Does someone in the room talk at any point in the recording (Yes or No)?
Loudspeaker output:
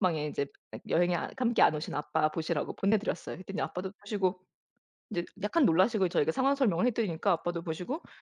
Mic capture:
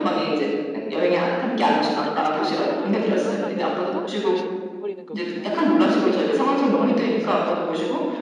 Yes